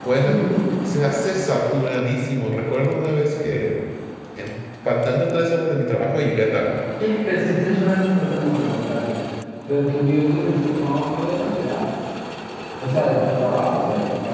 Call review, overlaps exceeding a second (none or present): none